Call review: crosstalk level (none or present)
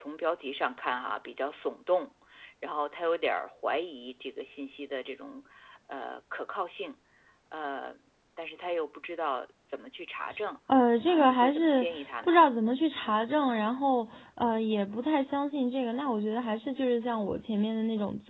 present